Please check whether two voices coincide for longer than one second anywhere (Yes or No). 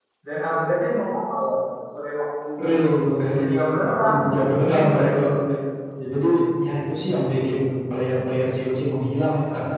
Yes